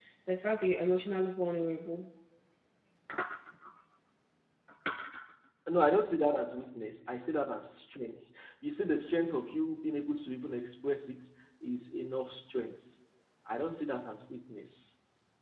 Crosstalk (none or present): none